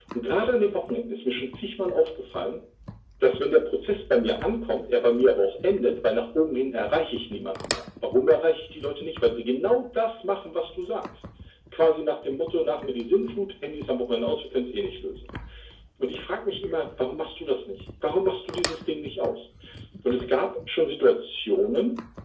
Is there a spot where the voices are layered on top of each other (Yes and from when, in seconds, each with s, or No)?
No